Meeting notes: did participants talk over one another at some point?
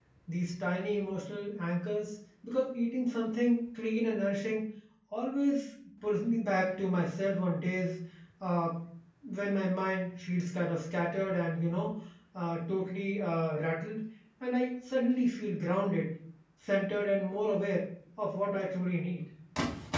No

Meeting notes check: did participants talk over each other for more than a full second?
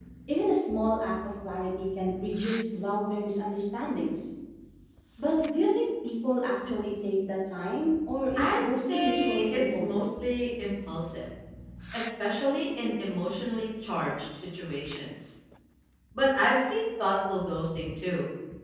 Yes, from 8.3 s

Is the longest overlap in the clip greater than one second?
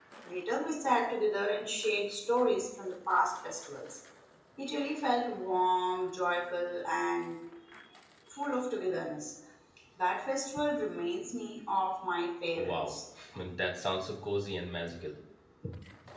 No

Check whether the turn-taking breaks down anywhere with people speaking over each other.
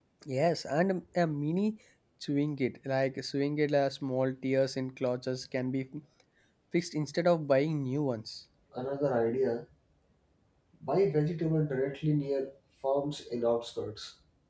No

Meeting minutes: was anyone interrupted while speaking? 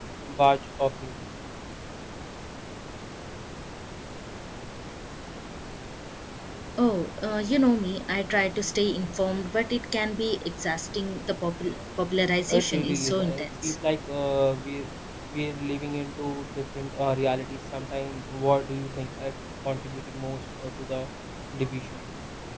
Yes, from 12.5 s

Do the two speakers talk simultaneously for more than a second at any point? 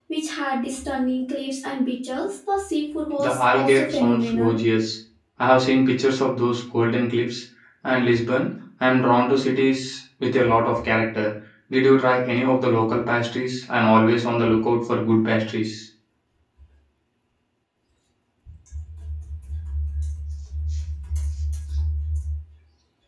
Yes, from 3.2 s

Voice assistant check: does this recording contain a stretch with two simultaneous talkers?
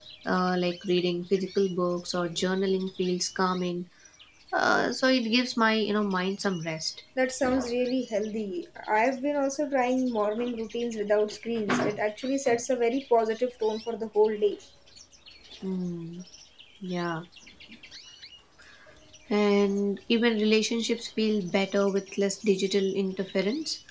No

